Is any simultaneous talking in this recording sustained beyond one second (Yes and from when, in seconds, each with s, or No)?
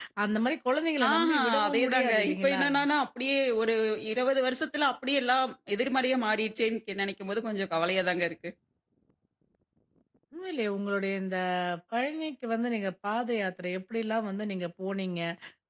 Yes, from 1.1 s